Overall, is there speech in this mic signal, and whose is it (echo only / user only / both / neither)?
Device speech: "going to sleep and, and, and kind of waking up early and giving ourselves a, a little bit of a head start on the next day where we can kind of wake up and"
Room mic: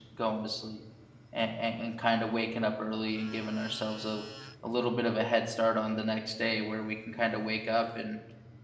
echo only